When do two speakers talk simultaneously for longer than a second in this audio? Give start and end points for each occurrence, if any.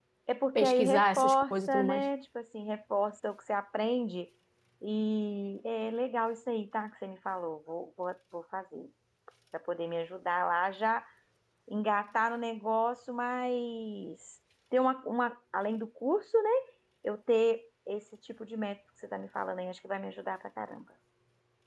0.6-2.0

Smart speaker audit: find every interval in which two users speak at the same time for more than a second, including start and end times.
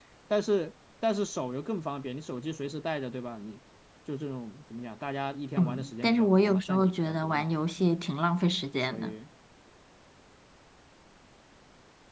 5.6-7.5

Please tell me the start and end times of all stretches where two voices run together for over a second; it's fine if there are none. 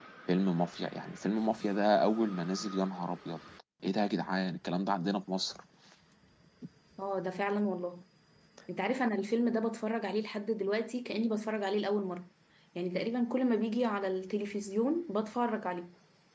none

